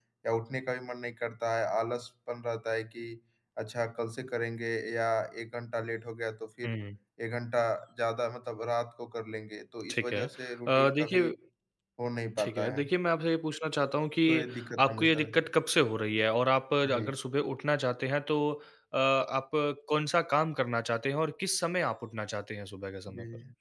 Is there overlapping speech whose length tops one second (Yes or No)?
Yes